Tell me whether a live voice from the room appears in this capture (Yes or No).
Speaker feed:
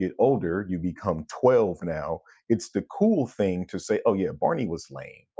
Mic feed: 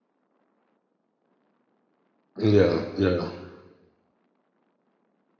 Yes